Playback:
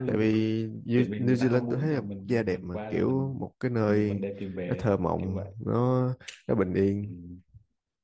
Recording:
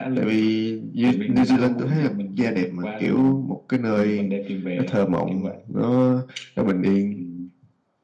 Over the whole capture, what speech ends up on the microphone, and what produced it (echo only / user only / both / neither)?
echo only